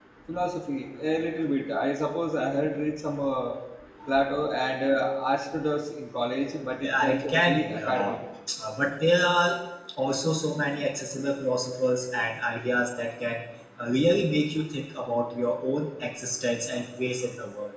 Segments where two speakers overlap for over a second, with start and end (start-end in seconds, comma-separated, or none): 6.8-8.1